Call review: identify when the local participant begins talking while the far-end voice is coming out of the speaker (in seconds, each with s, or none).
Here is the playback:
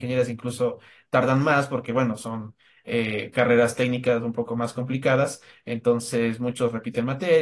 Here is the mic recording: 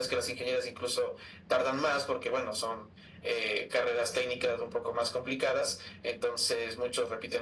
none